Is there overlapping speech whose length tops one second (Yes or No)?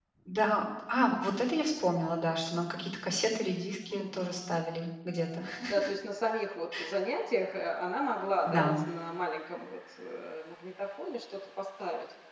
No